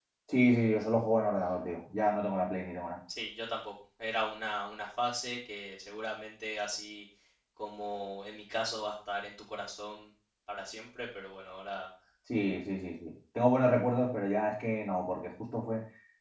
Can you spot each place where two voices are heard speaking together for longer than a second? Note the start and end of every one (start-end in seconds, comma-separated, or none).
none